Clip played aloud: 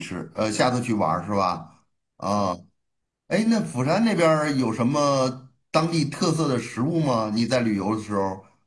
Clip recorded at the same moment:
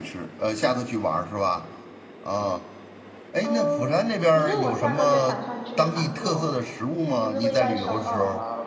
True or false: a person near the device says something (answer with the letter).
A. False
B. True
B